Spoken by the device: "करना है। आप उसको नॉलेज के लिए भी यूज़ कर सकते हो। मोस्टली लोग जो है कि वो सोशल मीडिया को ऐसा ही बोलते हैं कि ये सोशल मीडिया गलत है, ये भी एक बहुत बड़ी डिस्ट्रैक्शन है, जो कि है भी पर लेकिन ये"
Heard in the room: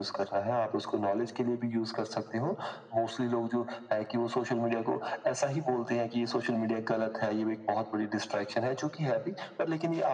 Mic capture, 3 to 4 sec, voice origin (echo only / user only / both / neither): echo only